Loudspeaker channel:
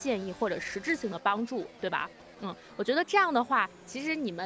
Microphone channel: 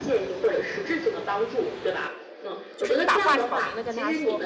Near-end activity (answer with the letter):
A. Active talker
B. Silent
A